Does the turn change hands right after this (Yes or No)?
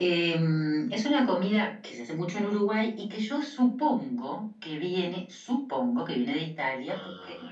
No